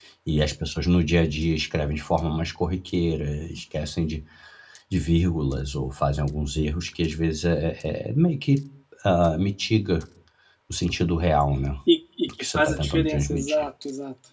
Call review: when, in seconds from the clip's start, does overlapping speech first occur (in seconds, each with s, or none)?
12.4 s